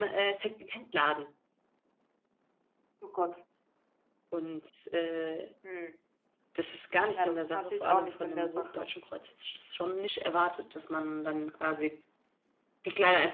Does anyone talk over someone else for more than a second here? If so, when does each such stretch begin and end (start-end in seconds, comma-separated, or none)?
7.1-8.9